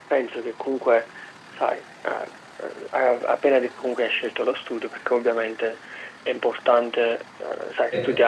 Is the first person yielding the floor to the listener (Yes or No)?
No